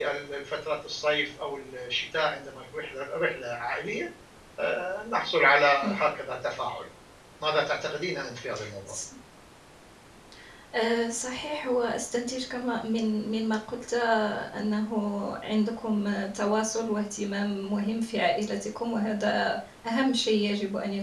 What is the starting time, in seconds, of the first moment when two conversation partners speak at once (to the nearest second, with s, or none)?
none